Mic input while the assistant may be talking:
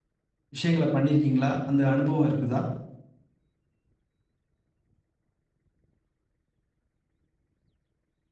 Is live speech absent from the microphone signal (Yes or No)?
No